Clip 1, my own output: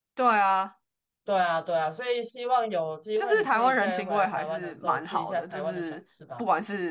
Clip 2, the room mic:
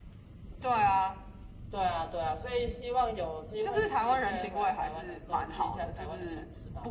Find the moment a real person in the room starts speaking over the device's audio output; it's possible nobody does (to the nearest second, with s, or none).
none